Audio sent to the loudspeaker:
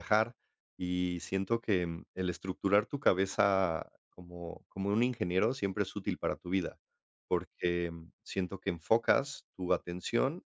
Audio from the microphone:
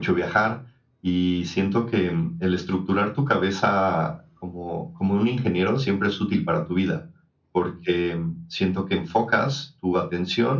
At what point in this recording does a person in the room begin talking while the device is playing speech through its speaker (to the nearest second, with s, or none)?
none